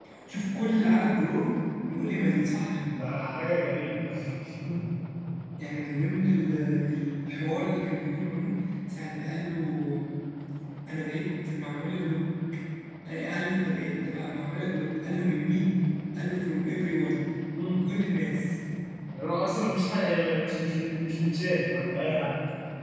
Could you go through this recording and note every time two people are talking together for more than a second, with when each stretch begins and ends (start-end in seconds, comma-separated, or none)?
none